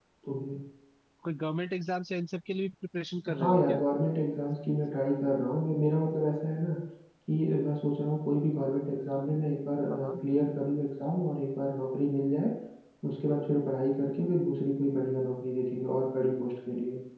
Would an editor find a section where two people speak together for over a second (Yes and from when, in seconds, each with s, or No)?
No